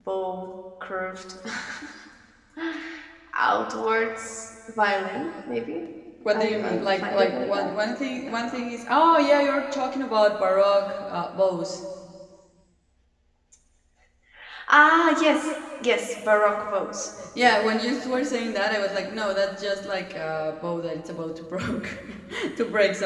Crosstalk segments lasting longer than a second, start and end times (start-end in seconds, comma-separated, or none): 6.3-7.7